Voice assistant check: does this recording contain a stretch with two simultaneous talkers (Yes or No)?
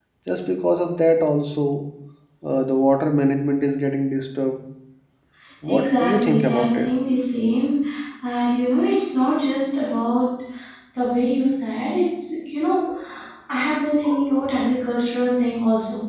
Yes